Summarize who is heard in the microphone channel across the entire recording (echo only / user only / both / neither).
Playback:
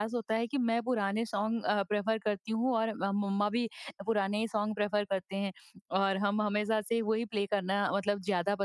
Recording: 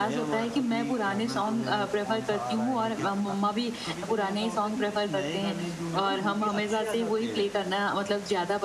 both